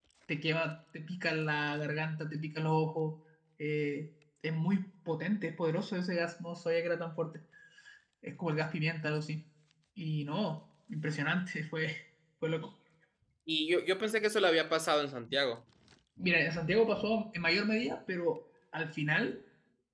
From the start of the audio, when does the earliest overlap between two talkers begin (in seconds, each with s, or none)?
none